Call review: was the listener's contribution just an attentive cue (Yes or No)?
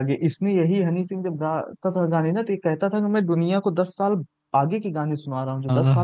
Yes